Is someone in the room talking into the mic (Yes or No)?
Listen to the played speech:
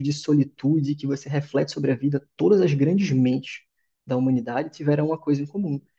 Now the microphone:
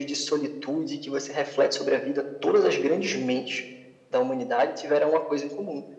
No